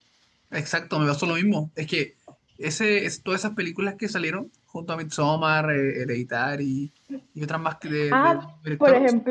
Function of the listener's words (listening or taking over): taking over